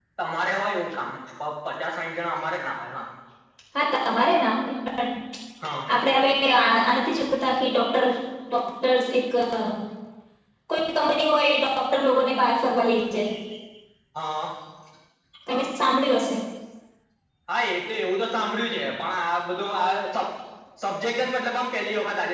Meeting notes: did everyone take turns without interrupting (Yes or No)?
Yes